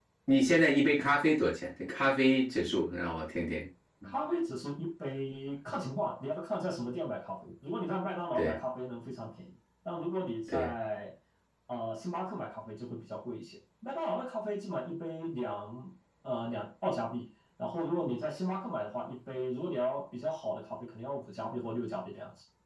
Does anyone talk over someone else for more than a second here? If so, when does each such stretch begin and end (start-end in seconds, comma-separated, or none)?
none